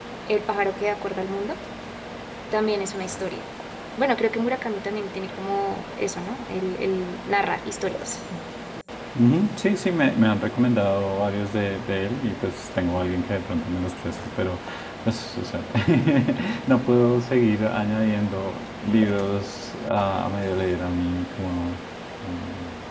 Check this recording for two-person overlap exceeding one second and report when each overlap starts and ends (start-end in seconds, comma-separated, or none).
none